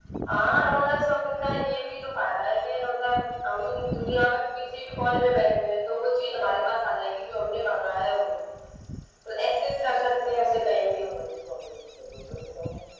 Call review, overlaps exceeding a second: none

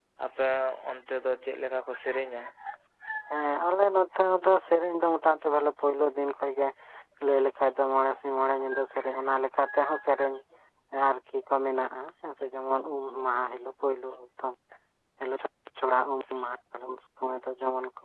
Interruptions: none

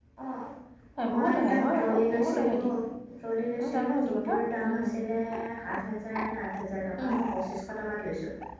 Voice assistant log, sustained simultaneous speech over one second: present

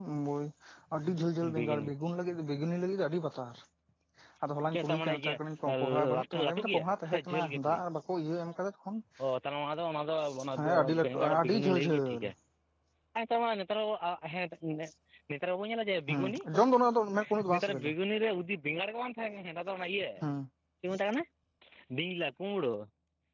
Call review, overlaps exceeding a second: present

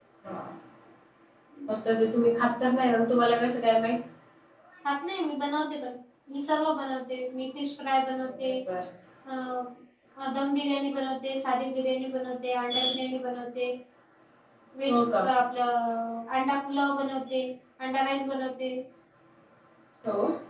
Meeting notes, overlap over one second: none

